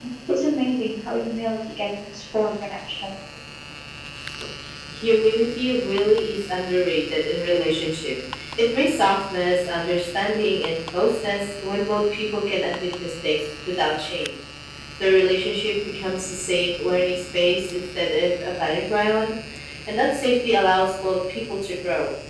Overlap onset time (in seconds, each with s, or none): none